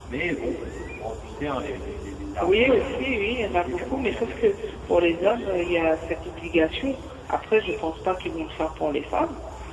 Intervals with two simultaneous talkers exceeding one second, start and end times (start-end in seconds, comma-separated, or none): 2.4-5.6